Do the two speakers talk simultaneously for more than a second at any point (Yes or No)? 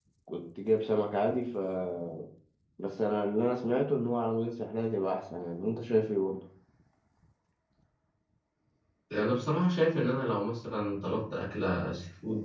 No